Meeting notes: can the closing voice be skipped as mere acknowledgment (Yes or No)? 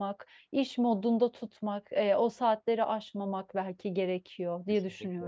No